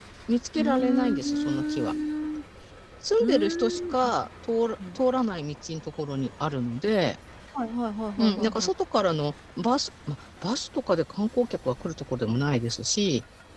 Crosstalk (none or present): present